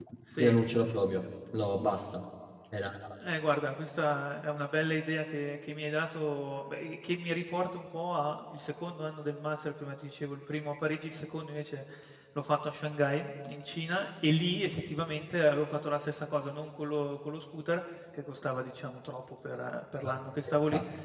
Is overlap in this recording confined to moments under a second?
Yes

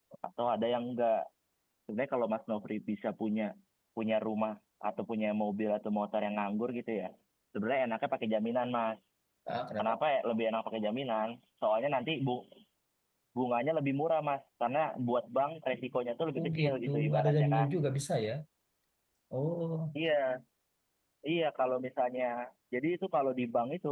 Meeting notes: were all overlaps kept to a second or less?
No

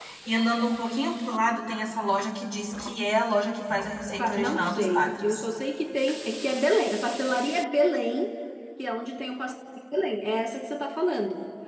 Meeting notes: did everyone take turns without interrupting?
No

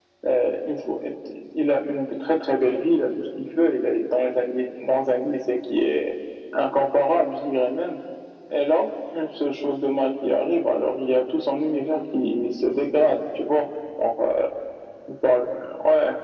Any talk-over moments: No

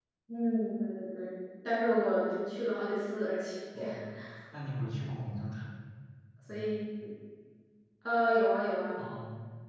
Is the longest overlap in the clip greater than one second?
No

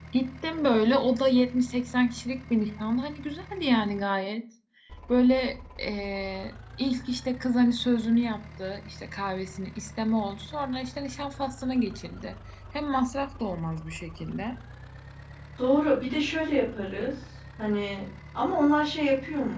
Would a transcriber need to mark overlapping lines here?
No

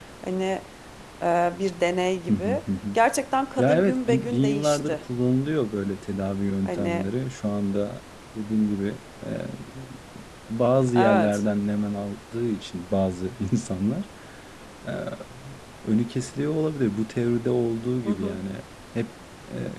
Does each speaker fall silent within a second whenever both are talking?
No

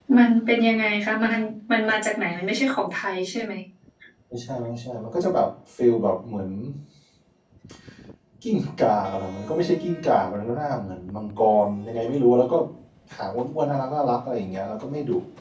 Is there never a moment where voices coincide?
Yes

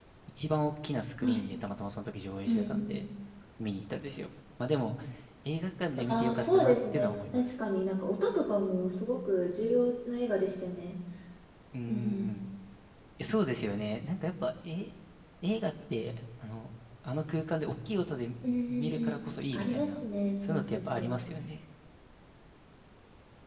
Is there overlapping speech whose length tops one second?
Yes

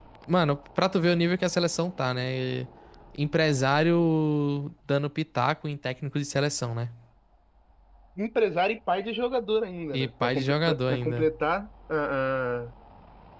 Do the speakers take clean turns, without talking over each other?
No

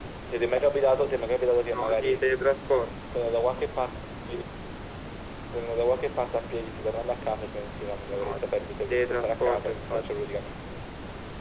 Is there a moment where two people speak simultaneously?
Yes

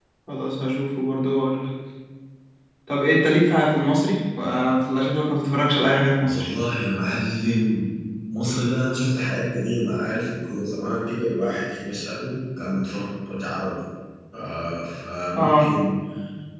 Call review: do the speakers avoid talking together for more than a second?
Yes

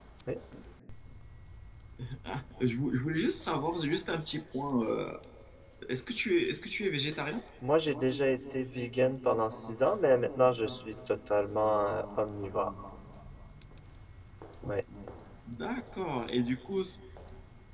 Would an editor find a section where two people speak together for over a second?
No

